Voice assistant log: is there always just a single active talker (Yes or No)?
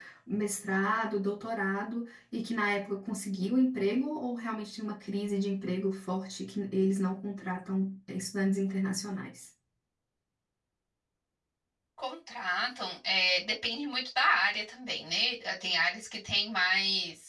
Yes